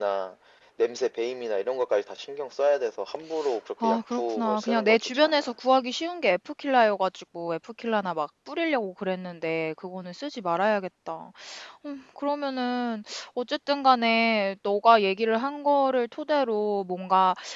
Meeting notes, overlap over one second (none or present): present